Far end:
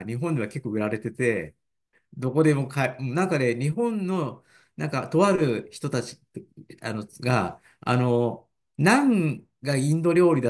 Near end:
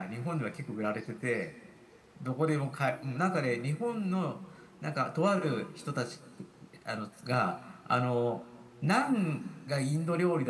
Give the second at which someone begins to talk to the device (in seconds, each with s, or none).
none